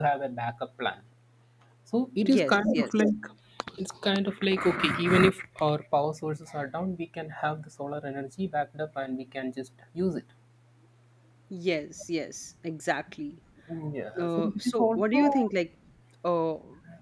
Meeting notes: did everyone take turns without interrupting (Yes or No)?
No